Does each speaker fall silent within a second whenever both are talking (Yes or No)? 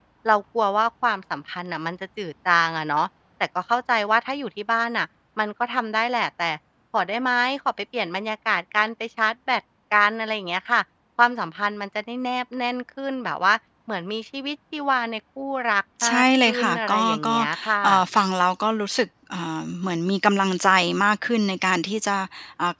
No